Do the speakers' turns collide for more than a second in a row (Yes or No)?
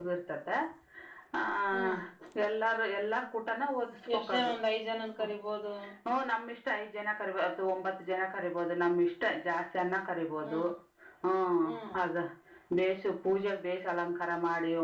No